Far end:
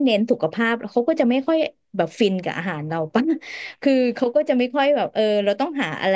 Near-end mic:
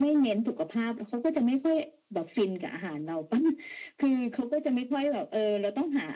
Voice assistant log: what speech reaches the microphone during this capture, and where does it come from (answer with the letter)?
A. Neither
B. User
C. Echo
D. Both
C